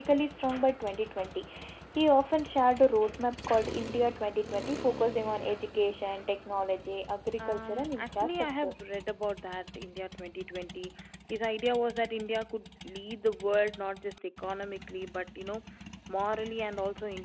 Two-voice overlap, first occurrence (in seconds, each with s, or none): 7.4 s